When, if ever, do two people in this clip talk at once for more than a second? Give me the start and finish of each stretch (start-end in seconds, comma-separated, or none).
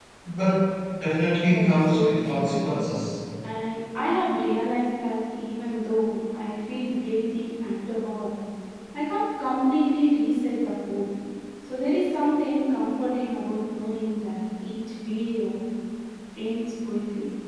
1.4-2.7